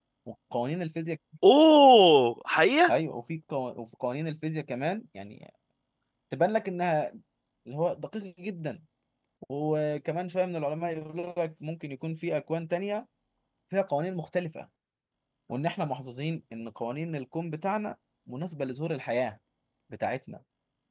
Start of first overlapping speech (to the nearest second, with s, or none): none